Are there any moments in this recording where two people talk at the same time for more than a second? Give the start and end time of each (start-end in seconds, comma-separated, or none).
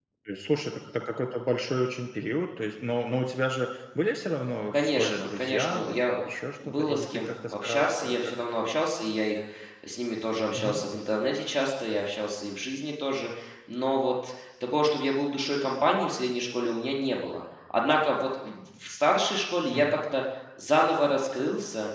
4.7-6.2, 6.6-8.3